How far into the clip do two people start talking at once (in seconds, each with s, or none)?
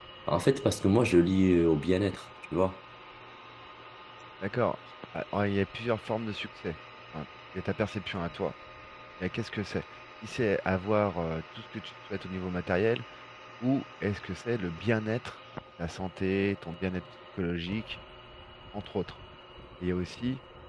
none